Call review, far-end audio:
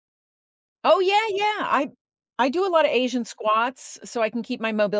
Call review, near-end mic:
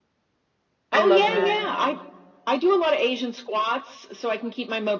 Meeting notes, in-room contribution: present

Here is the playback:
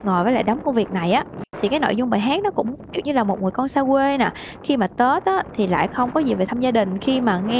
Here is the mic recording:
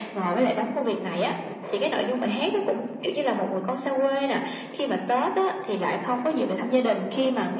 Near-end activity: none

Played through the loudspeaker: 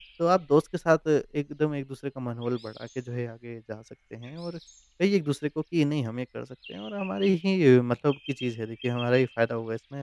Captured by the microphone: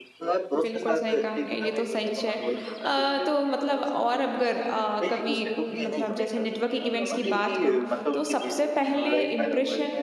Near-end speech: present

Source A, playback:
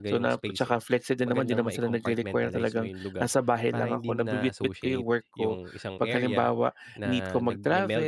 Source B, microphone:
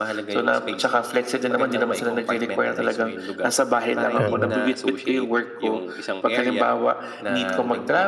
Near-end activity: present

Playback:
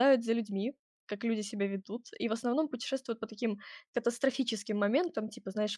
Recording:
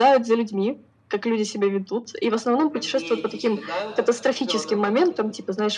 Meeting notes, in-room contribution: present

